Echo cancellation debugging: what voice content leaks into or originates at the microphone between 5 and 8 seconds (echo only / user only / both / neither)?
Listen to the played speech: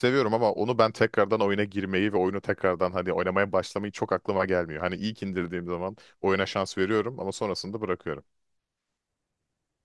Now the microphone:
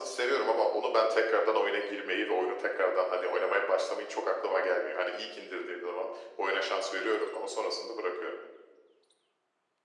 echo only